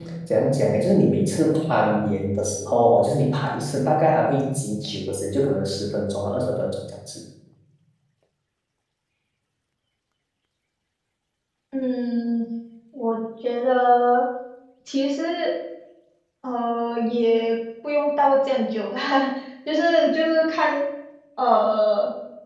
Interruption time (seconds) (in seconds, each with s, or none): none